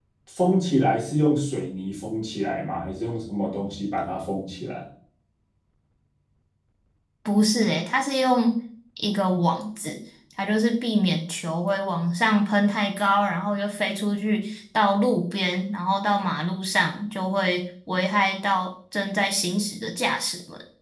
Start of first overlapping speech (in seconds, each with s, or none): none